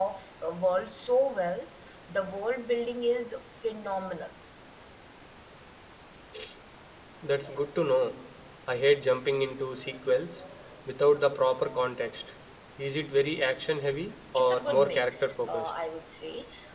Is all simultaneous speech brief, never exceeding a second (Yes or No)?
No